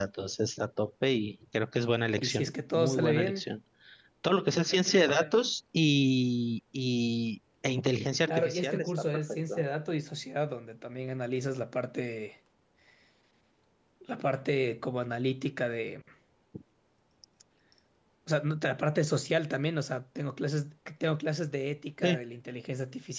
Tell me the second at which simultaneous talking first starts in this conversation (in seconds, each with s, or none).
2.2 s